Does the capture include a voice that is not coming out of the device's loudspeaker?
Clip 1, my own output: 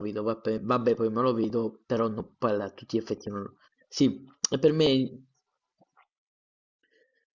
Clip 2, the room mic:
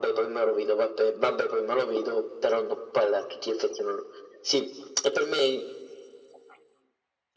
No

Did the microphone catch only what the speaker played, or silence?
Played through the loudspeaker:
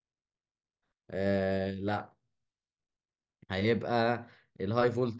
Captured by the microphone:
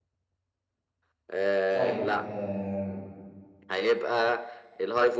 No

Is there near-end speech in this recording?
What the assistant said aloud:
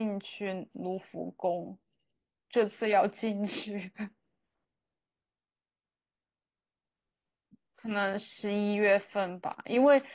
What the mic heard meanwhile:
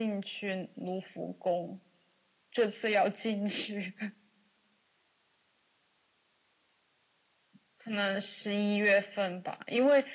No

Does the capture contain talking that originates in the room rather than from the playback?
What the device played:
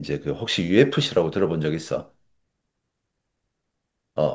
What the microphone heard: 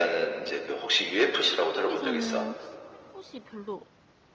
Yes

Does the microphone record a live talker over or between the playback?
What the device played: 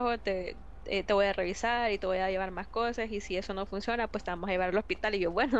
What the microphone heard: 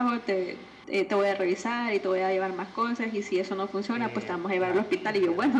Yes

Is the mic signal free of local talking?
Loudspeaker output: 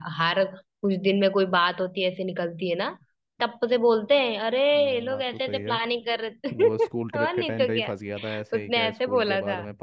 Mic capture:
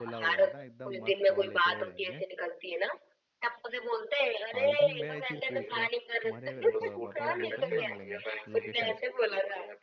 No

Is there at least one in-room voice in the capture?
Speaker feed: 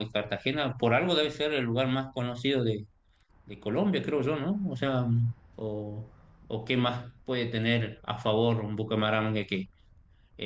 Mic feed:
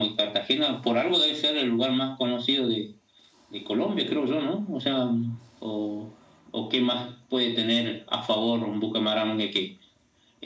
No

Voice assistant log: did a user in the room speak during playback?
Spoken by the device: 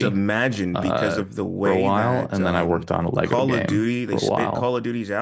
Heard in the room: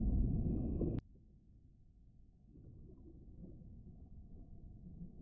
No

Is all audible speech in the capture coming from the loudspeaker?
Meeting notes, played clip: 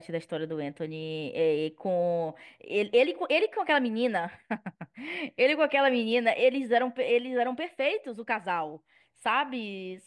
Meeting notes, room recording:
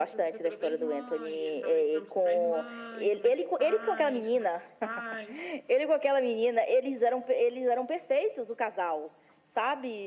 No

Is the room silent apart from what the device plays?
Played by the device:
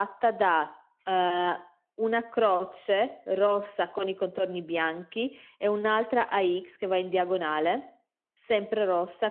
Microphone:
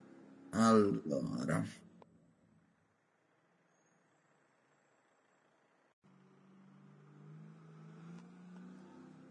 No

